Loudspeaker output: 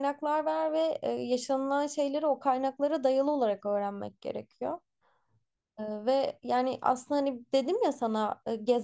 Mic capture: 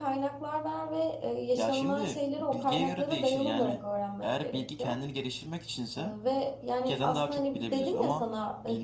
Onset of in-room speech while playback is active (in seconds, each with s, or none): 1.6 s